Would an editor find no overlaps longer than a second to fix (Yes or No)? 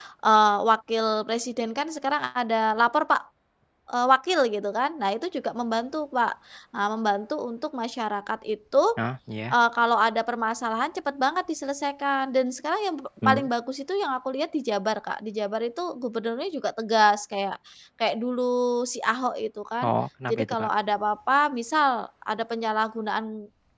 Yes